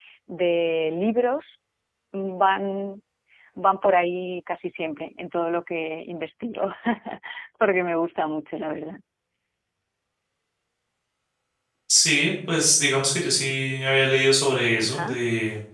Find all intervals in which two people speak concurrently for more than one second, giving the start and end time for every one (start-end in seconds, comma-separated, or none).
none